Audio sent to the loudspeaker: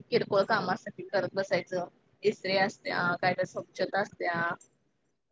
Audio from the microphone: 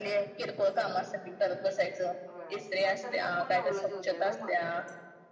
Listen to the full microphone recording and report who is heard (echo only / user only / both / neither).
both